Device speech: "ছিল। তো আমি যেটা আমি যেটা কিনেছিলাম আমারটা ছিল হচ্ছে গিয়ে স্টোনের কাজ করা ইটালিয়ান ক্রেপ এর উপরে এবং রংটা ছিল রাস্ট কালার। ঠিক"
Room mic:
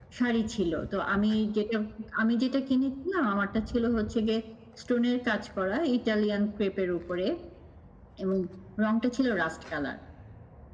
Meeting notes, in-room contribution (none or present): none